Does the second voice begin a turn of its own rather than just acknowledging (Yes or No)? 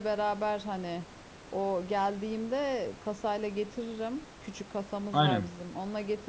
No